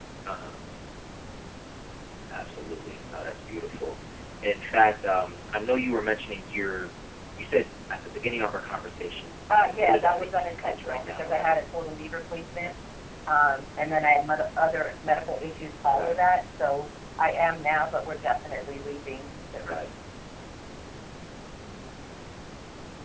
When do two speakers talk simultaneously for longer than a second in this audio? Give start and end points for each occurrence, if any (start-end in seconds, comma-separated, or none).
9.6-11.5